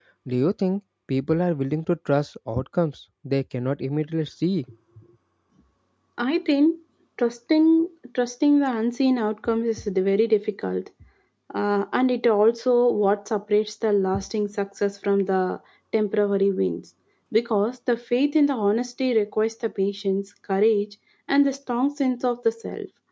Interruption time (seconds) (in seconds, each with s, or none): none